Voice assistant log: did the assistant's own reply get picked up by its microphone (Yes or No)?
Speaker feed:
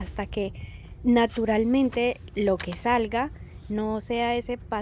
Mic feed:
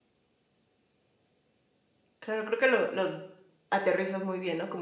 No